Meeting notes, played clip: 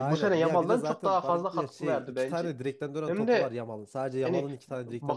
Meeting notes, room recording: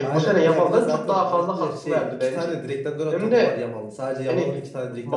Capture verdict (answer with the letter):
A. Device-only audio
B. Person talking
A